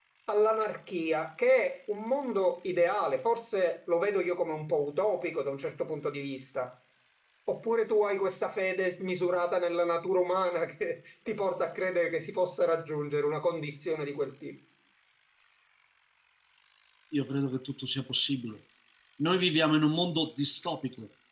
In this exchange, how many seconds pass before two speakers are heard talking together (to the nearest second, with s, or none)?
none